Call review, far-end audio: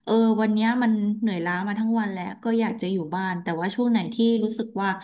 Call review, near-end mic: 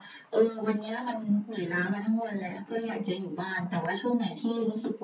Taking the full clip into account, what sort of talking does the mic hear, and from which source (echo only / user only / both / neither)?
echo only